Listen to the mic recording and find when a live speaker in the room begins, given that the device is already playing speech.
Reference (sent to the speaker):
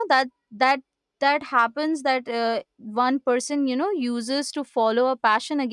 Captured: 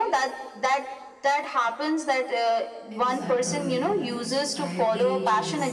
2.9 s

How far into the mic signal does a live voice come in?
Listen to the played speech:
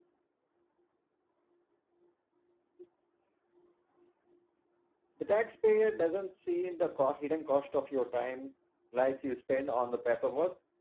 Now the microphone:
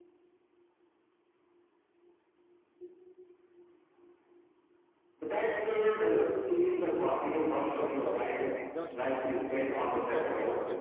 7.7 s

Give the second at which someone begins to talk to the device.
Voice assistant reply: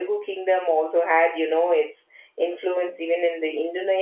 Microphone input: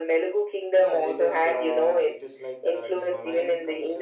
0.7 s

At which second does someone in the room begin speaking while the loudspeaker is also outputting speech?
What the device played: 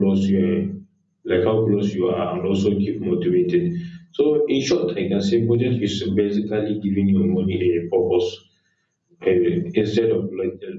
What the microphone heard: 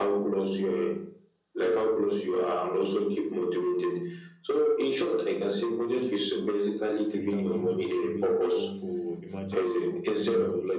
7.1 s

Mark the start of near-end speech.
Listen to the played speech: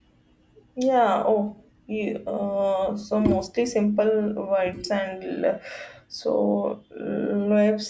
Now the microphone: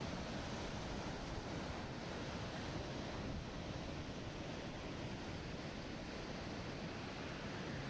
none

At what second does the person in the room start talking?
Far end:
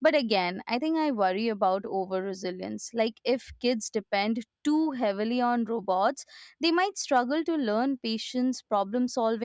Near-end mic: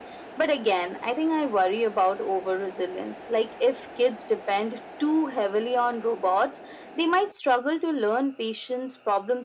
none

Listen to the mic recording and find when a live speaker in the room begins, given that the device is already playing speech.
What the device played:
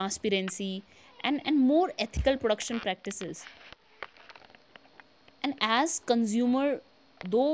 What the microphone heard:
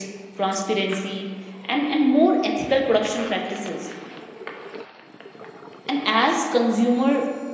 none

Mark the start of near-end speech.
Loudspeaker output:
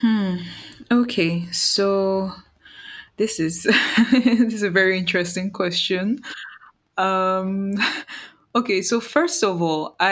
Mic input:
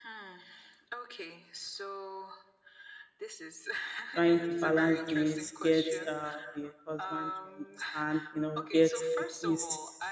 4.1 s

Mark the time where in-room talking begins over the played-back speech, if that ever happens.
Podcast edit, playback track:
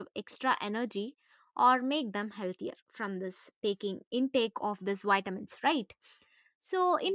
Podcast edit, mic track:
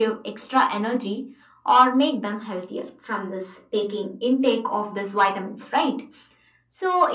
none

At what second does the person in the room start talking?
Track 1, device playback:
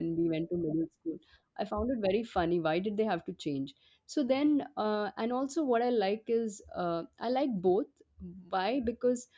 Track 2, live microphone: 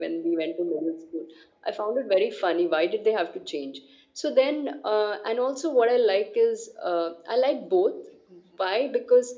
none

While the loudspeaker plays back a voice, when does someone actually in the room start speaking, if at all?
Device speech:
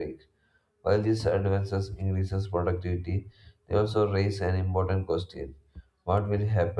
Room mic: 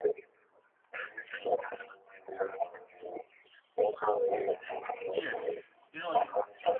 5.1 s

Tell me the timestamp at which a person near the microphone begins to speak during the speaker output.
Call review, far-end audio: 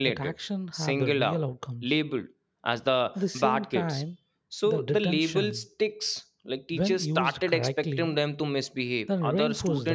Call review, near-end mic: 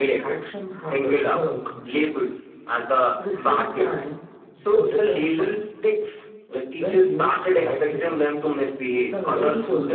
none

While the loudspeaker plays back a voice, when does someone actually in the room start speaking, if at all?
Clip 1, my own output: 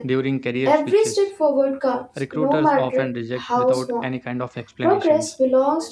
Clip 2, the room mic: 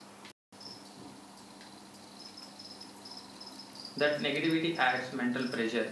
4.0 s

